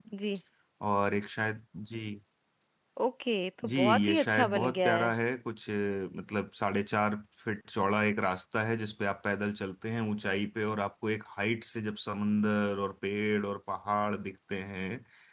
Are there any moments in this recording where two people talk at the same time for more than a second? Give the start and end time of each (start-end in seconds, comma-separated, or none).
3.7-5.1